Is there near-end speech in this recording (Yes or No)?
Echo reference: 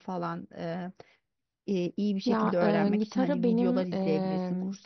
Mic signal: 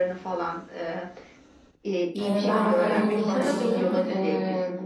Yes